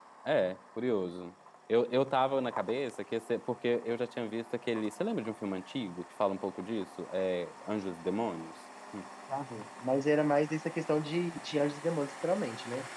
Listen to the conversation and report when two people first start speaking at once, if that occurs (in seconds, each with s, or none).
none